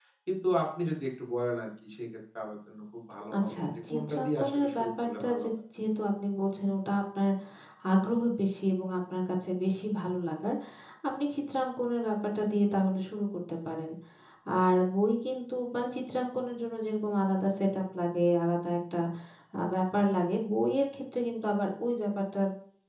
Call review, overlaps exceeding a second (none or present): present